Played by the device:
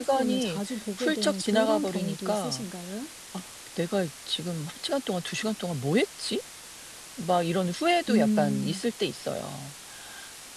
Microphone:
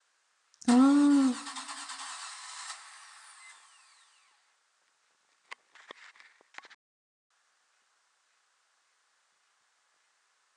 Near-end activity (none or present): present